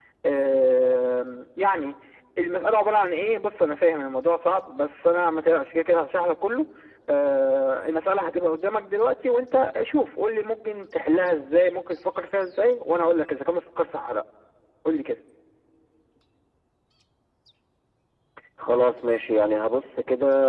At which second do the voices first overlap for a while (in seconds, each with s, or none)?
none